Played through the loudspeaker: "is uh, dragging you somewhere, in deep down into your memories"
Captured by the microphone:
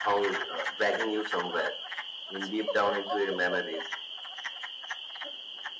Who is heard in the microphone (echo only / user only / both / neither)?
echo only